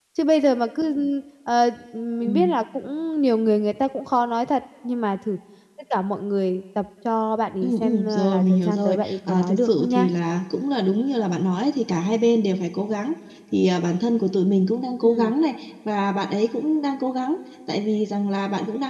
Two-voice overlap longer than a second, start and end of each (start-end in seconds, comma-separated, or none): 7.6-10.1